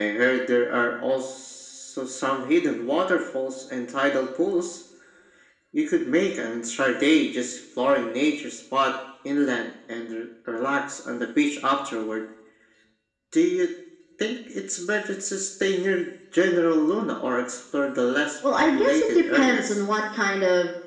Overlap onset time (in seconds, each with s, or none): 18.4 s